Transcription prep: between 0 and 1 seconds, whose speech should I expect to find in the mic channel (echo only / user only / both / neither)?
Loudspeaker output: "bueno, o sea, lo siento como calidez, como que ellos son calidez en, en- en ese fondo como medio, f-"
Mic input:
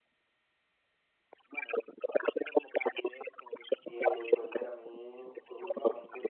neither